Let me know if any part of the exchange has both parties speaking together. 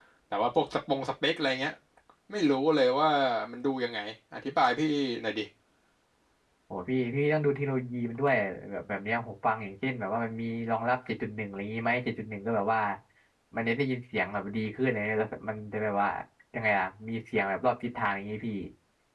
No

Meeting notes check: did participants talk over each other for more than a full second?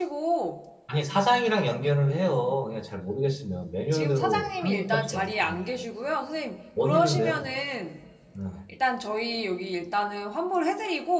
Yes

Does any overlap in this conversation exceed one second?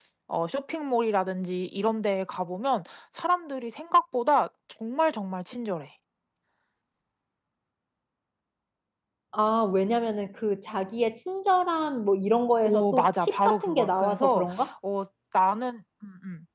Yes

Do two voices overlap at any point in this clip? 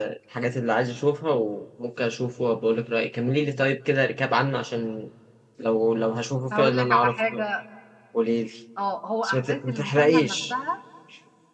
Yes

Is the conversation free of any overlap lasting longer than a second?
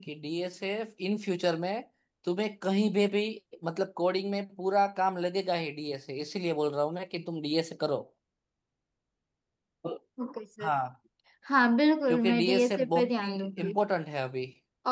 No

